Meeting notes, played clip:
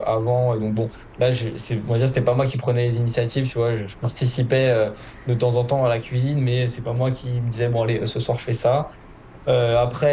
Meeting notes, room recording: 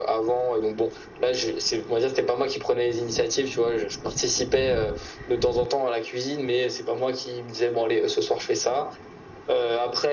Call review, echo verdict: present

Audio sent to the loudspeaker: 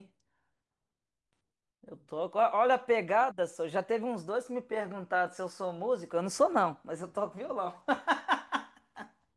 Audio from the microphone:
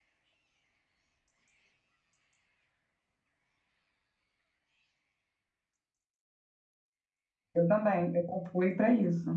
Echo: none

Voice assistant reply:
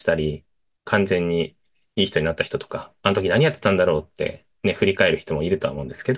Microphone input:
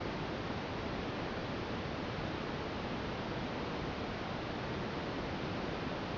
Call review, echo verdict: none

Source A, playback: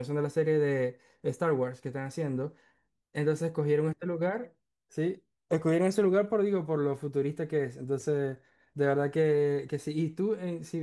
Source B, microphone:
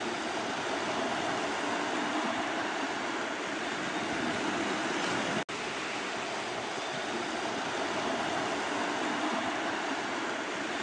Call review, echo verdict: none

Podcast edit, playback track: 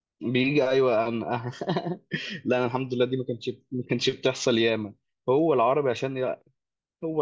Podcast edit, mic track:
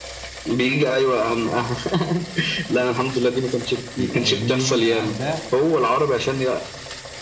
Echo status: present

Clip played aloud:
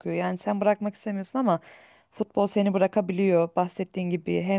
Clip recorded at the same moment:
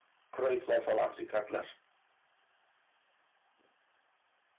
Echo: none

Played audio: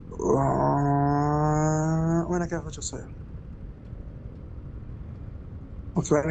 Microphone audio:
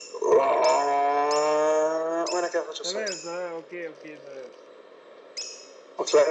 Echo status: present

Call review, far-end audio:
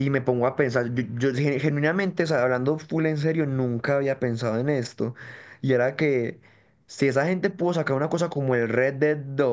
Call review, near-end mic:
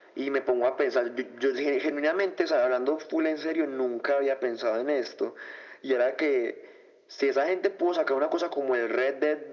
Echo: present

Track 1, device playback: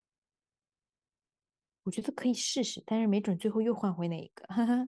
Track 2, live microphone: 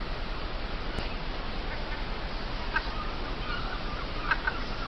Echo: none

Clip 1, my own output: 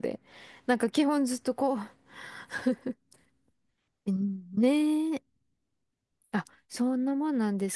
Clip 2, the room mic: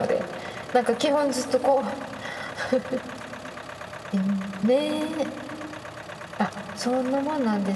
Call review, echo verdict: present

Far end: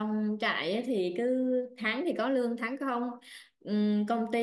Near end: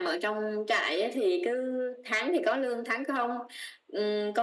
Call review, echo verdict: present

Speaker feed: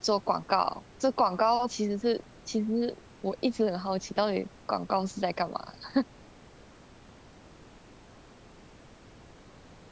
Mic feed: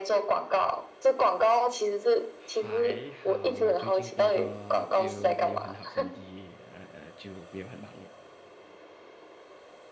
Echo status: present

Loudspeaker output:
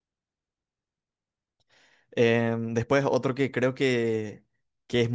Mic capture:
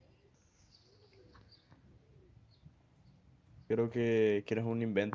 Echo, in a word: none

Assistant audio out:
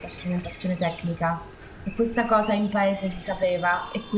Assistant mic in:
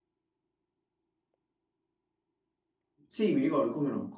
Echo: none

